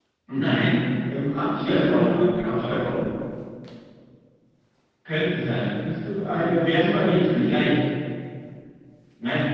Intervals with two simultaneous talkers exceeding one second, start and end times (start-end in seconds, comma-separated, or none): 1.6-2.8, 6.3-7.7